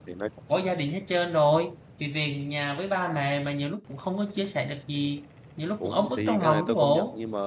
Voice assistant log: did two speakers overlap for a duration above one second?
Yes, from 5.8 s

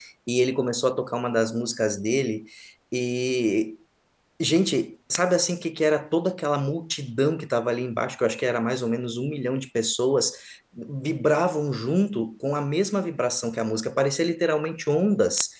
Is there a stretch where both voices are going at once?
No

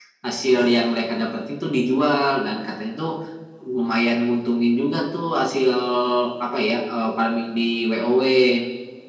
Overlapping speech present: No

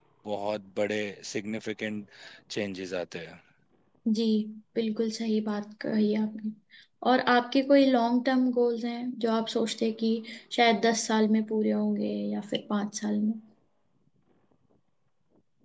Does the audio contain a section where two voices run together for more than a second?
No

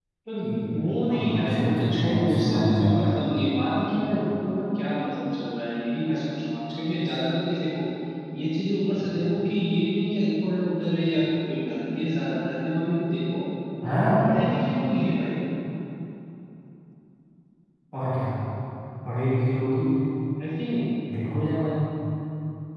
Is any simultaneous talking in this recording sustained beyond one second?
Yes, from 0.9 s

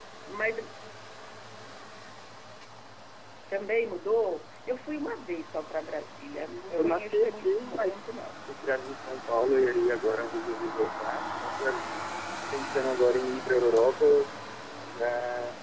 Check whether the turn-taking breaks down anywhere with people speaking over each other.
Yes, from 6.7 s

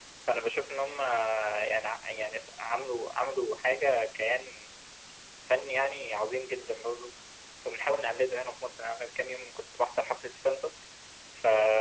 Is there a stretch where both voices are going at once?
No

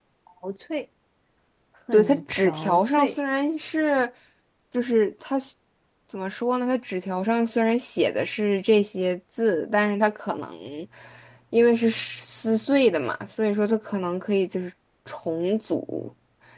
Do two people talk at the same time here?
Yes, from 1.9 s

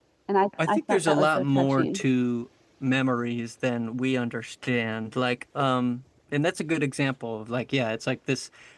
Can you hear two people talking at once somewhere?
Yes, from 0.7 s

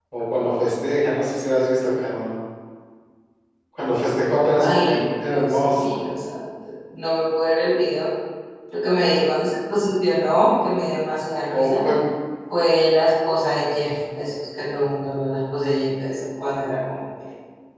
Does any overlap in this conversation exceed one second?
Yes, from 4.6 s

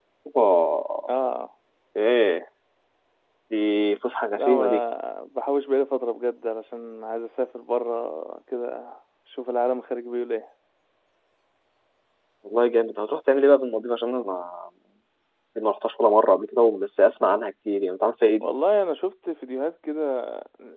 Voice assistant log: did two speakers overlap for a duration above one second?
No

